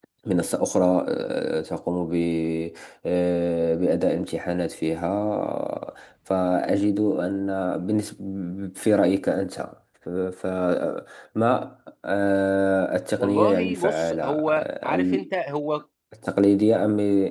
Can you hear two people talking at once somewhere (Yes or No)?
Yes